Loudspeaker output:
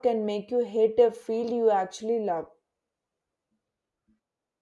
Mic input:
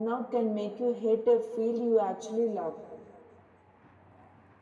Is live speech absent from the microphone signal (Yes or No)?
Yes